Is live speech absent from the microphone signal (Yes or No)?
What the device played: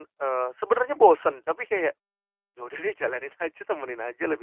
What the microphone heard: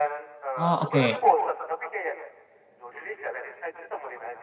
No